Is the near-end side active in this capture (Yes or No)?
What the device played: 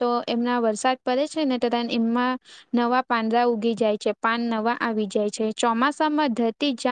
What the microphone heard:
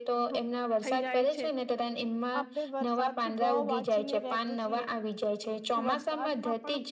Yes